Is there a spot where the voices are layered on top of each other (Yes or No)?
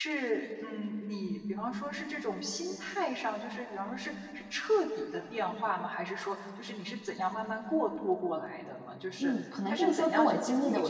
Yes